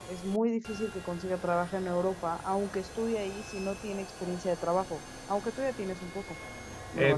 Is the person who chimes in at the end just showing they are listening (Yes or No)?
No